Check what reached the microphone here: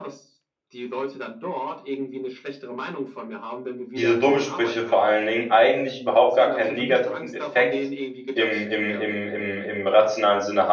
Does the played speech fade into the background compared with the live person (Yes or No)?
Yes